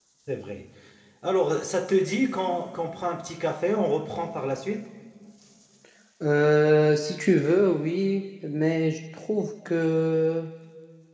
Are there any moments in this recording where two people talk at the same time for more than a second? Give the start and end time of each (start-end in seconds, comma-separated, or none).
none